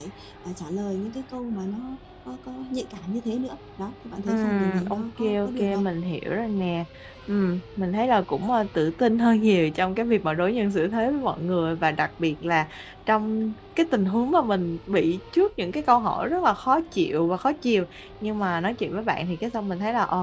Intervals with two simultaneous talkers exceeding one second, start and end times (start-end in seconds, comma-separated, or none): 4.3-5.8